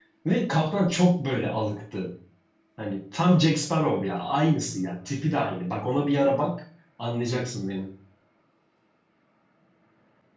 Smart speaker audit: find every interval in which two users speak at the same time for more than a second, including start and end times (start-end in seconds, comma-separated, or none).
none